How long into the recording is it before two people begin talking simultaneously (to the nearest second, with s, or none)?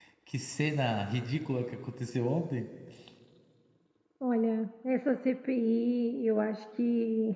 none